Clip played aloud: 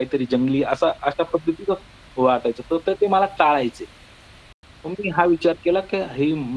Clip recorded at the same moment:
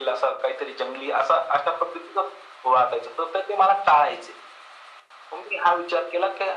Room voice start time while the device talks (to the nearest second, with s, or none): none